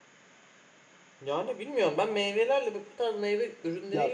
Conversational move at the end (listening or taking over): taking over